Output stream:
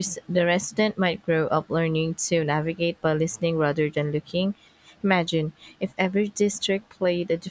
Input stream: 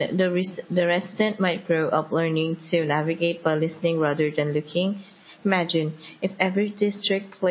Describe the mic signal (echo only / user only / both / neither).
echo only